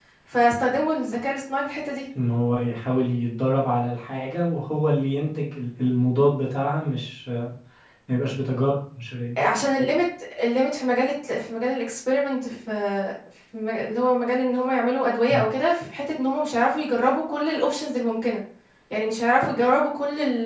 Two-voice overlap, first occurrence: none

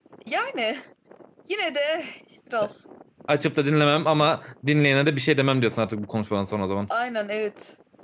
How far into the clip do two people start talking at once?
none

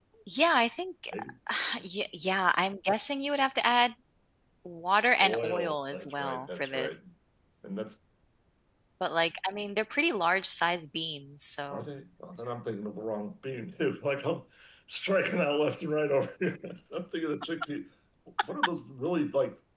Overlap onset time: 5.2 s

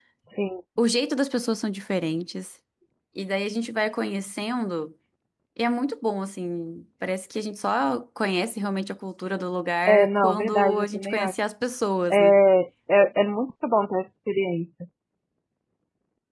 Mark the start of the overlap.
9.9 s

